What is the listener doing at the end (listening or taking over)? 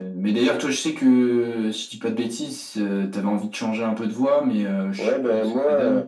taking over